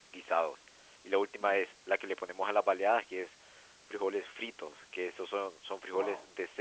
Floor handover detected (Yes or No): No